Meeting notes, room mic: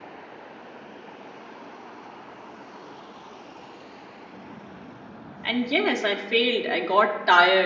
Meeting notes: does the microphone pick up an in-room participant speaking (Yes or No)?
Yes